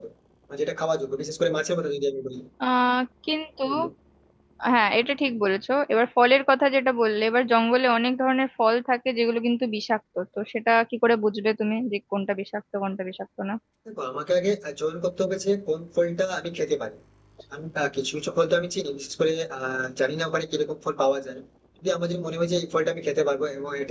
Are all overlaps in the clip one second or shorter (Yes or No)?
Yes